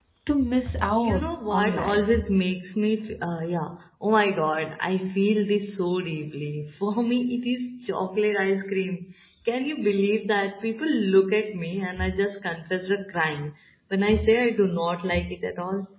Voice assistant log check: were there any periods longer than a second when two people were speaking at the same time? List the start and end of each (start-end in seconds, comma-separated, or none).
1.0-2.2